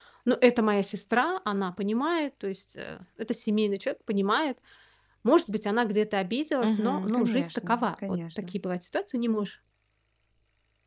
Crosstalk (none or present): present